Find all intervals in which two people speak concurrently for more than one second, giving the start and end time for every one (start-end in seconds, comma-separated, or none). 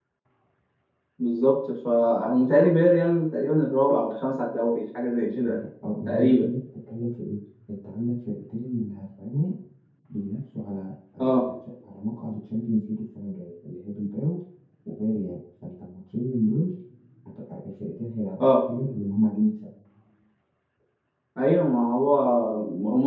none